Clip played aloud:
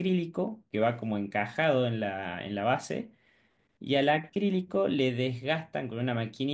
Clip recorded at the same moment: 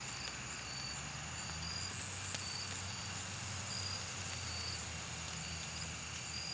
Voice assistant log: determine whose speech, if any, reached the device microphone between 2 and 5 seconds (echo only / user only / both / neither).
neither